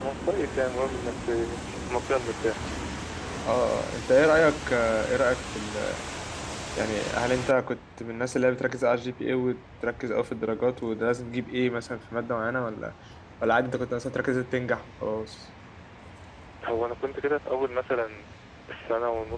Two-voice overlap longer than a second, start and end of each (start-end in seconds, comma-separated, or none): none